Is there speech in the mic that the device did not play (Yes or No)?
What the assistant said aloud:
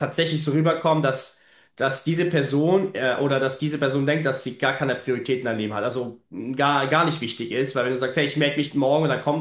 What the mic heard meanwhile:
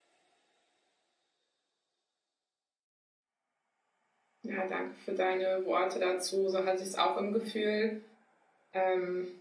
Yes